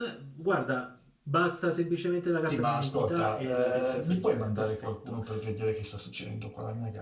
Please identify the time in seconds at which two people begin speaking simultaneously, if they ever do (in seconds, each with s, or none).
2.5 s